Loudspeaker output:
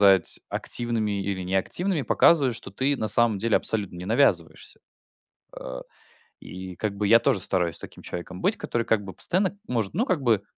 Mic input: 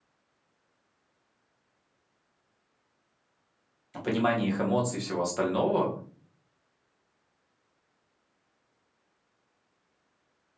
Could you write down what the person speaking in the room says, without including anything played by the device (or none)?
понимание их эмоций и всего остального,